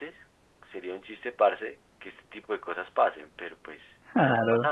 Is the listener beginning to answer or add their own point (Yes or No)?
No